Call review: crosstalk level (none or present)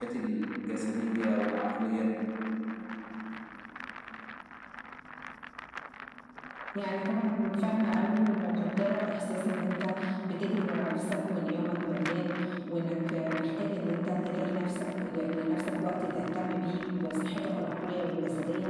none